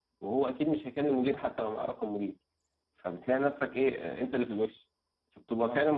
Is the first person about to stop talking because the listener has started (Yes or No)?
No